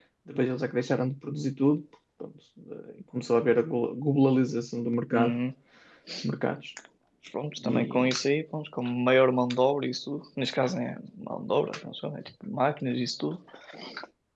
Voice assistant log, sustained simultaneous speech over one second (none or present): none